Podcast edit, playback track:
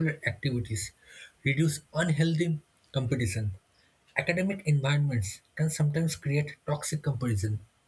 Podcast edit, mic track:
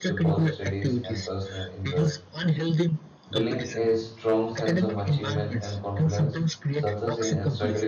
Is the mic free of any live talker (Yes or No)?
No